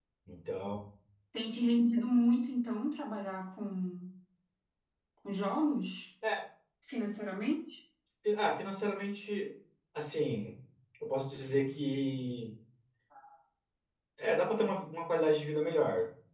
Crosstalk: none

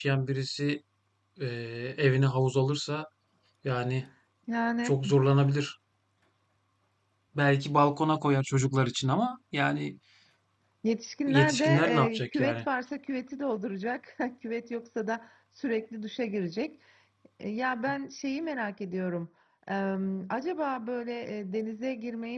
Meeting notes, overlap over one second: present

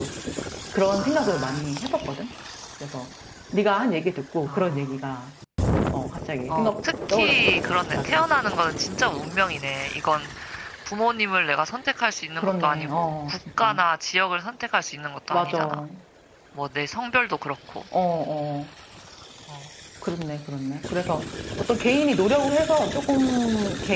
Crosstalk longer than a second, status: present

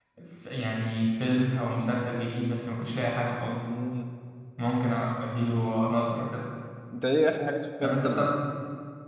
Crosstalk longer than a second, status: none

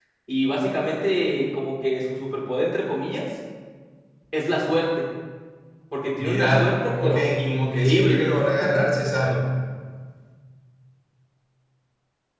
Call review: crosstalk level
present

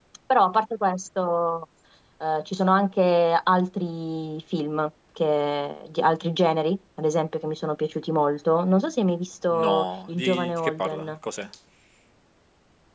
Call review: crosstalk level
present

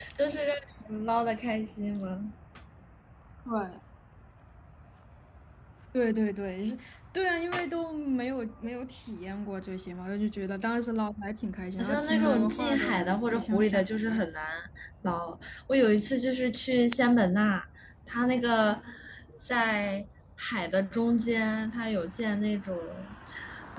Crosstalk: present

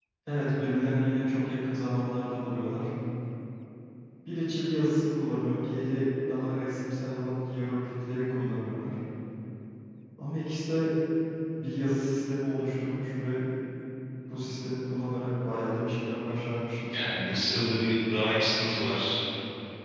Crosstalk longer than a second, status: none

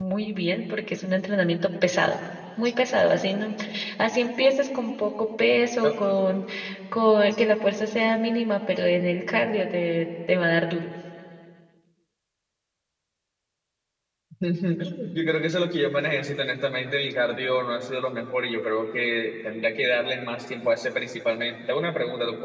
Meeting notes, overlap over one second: none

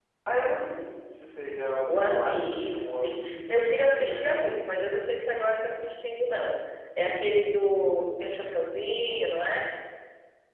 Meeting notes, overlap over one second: present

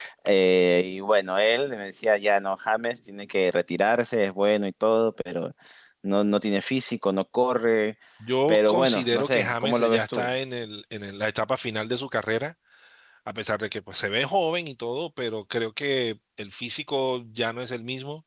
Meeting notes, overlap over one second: present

